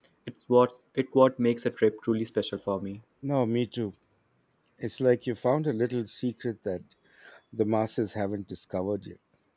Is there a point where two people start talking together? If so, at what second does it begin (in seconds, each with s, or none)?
none